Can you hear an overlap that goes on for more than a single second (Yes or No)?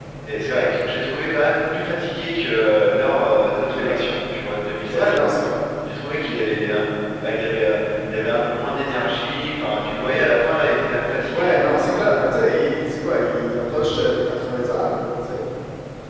No